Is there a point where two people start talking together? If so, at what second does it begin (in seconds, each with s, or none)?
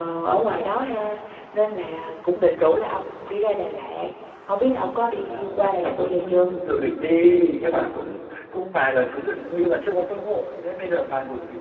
5.1 s